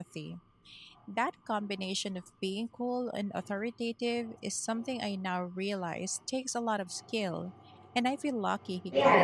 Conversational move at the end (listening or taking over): taking over